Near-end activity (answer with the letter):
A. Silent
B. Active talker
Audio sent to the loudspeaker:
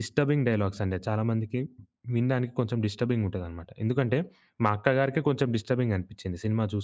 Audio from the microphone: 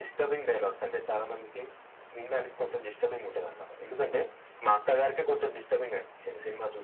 A